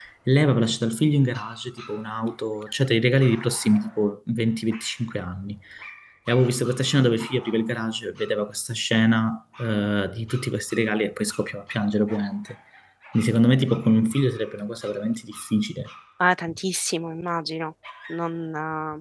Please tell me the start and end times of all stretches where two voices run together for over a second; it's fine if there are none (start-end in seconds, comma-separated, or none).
none